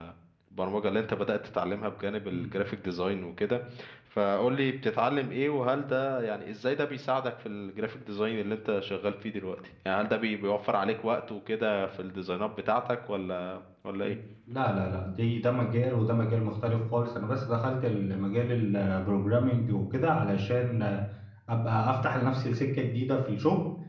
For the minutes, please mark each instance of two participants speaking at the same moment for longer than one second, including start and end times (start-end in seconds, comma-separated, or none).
none